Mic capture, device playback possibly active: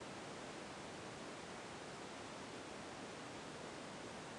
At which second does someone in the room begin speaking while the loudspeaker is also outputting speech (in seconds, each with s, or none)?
none